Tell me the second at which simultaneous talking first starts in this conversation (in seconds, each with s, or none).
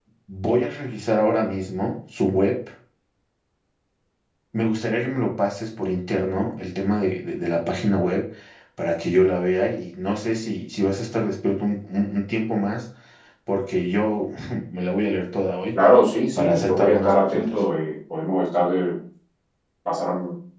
16.4 s